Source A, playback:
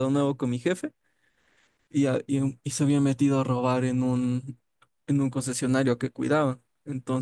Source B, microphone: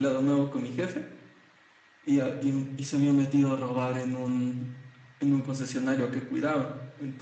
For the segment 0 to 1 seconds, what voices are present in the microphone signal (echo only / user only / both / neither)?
echo only